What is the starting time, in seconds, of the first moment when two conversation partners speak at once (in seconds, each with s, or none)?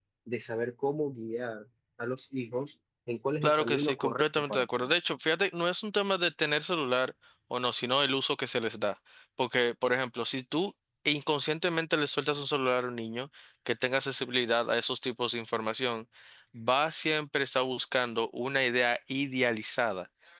3.4 s